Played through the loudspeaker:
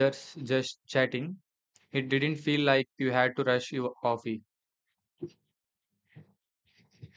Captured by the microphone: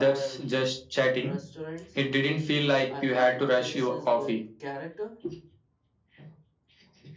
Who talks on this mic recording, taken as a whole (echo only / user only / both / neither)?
both